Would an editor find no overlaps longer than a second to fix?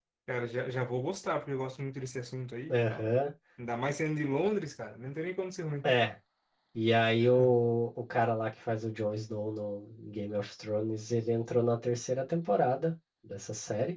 Yes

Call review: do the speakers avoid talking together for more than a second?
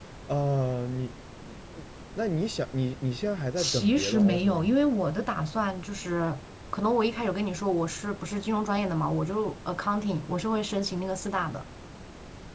No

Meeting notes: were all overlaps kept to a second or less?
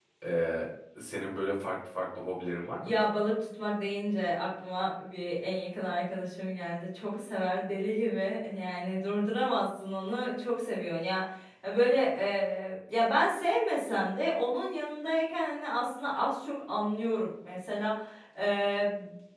Yes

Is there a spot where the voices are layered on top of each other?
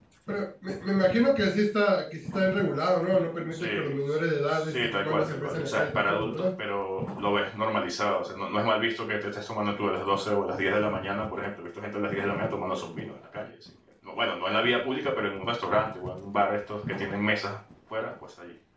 Yes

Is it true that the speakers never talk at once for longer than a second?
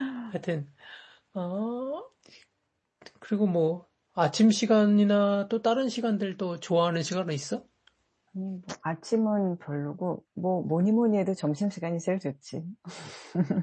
Yes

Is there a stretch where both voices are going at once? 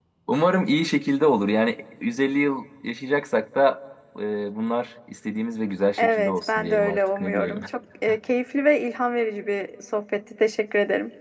Yes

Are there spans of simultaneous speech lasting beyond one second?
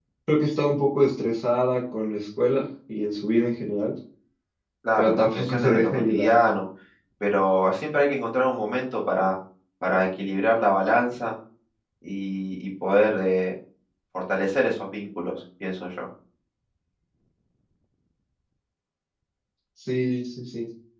Yes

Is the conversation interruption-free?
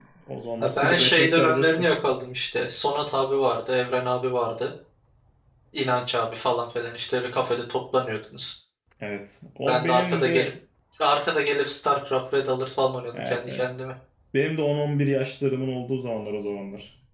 No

